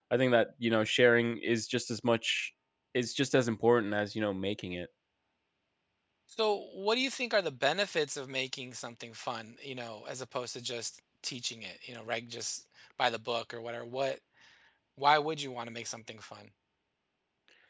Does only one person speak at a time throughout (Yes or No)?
Yes